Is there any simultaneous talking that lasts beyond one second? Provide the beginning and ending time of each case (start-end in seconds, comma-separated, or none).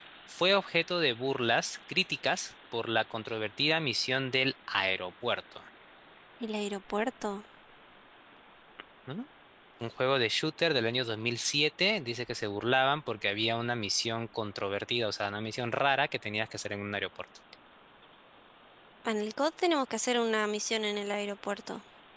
none